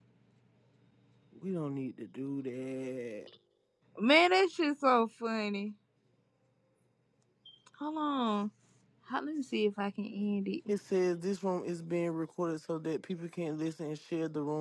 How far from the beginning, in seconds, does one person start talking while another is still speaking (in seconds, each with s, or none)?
none